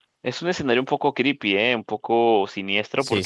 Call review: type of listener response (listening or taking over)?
listening